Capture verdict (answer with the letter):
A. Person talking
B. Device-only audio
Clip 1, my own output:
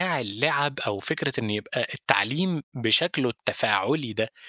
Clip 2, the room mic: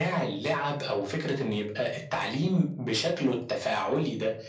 B